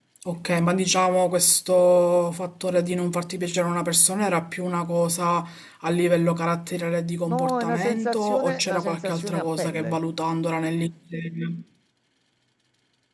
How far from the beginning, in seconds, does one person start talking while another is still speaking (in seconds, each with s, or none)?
7.3 s